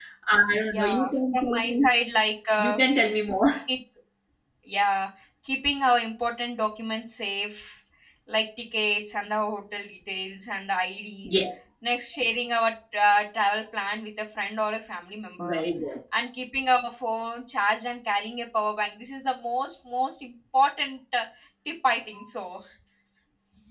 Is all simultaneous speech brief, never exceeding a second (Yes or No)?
No